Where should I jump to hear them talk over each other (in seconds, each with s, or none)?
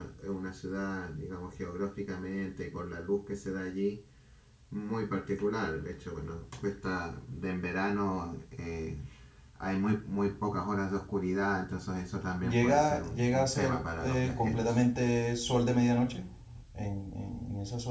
12.4 s